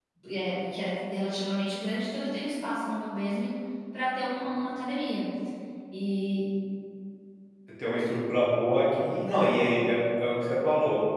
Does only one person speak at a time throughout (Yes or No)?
Yes